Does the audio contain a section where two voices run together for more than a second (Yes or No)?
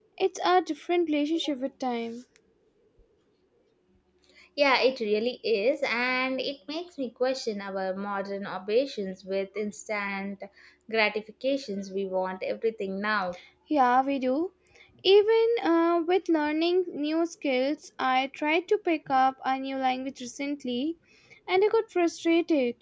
No